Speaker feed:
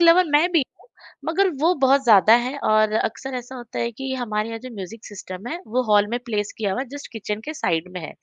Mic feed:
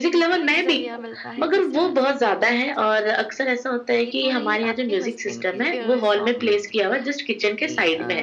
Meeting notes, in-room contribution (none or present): present